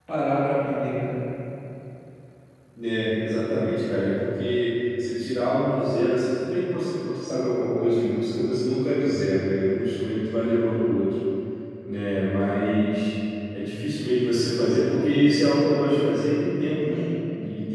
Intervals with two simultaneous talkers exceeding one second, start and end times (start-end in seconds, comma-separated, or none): none